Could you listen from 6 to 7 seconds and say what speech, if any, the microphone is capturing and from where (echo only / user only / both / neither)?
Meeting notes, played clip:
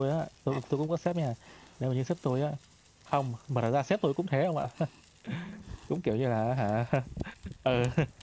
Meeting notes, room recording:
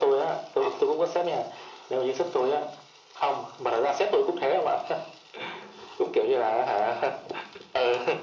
echo only